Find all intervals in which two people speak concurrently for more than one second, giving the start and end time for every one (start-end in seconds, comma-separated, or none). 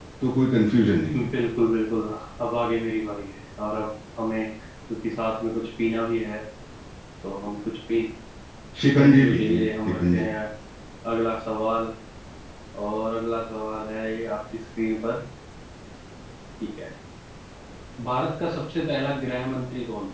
8.8-10.3